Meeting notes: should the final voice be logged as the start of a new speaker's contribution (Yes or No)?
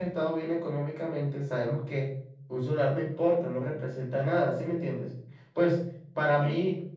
No